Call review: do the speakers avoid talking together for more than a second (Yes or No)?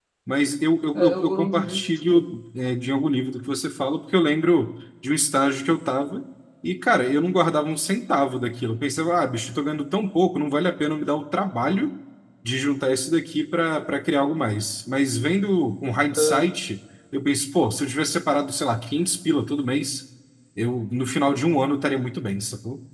No